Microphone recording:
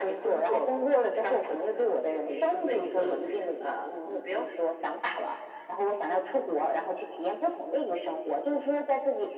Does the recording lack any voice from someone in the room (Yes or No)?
Yes